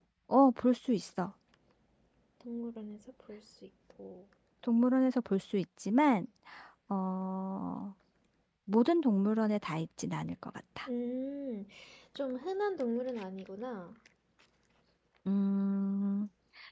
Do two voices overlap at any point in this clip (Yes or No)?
No